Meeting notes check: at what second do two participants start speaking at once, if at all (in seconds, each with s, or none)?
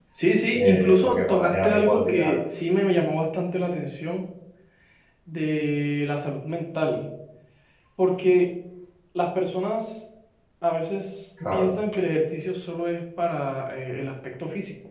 0.6 s